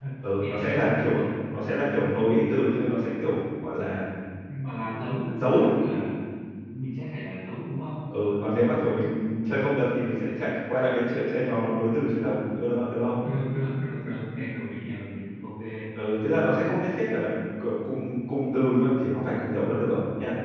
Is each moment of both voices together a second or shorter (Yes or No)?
No